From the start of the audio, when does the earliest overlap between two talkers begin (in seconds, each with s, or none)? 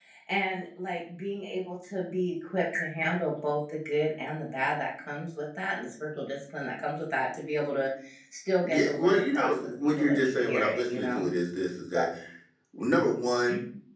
8.6 s